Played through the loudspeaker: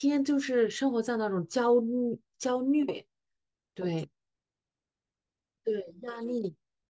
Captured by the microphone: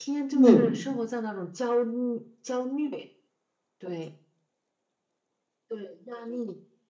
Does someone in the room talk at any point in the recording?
Yes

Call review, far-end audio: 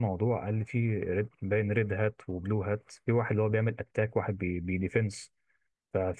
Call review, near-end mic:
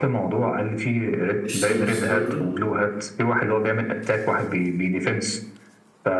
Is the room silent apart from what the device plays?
No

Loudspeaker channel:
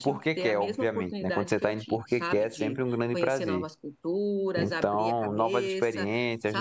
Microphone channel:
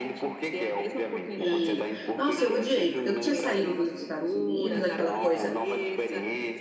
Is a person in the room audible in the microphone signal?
Yes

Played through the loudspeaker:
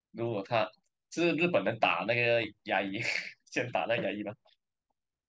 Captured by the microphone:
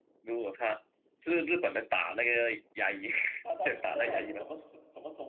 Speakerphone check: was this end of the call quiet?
No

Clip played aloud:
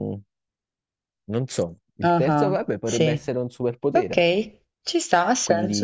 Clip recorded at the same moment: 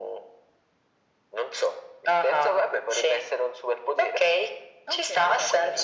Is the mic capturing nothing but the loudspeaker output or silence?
No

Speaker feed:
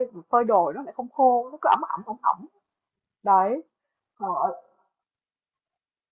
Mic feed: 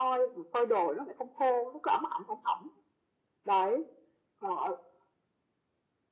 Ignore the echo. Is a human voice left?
No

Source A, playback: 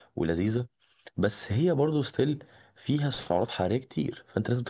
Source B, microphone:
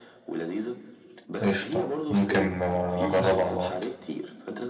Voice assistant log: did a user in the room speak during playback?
Yes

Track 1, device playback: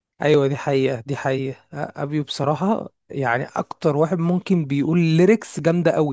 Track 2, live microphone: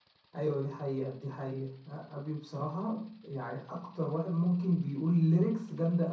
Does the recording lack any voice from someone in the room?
Yes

